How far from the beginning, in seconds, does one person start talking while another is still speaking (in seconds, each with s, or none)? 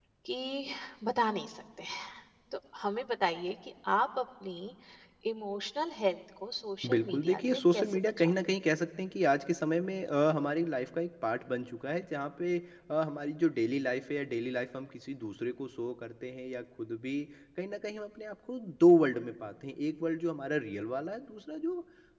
6.8 s